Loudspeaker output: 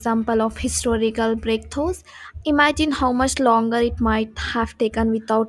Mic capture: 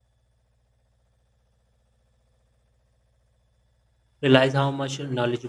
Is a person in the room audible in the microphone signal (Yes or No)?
Yes